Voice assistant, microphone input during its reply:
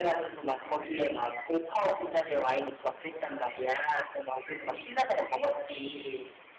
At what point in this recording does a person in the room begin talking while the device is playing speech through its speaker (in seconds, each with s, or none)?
none